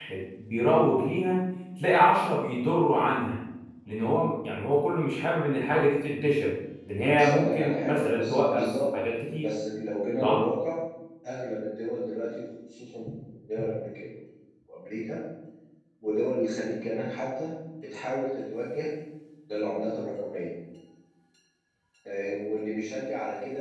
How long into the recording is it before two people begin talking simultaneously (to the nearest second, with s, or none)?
7 s